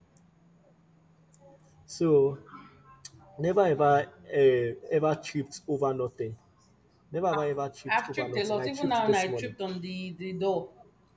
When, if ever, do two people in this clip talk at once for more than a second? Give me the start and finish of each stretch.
7.9-9.5

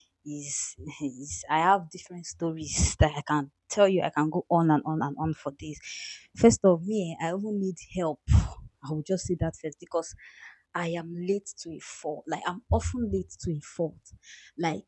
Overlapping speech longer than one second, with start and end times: none

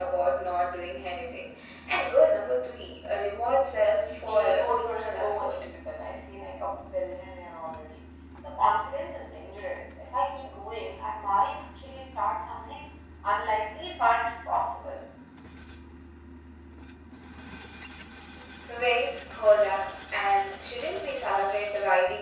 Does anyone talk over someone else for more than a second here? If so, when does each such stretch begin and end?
4.2-5.6

